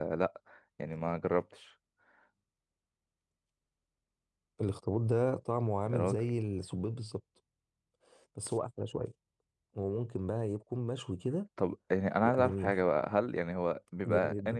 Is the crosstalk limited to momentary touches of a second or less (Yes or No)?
Yes